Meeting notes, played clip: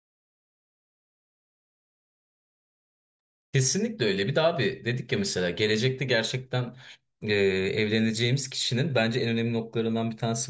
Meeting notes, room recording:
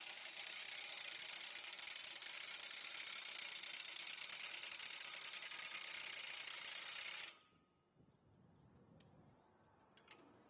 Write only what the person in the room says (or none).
none